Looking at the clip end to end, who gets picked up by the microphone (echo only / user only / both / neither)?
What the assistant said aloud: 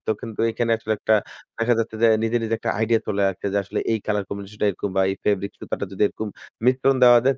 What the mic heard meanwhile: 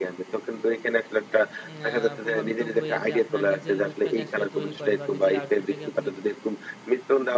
both